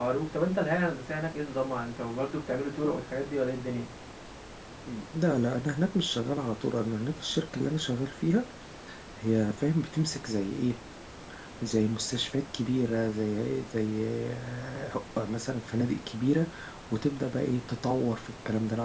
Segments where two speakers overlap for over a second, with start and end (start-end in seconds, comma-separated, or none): none